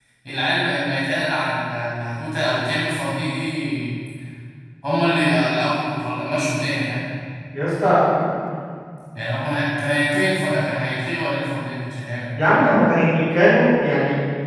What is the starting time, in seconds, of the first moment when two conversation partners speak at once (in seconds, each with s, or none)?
none